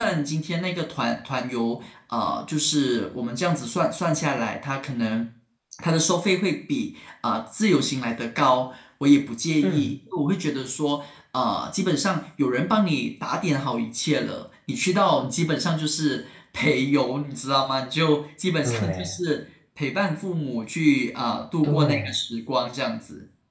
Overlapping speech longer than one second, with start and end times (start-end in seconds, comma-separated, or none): none